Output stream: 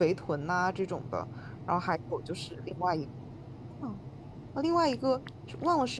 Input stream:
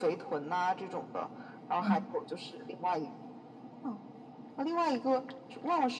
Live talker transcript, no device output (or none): 嗯，